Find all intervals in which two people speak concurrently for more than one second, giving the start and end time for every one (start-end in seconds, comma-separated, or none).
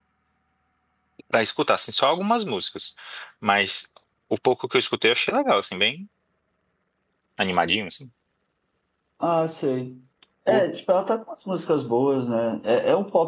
none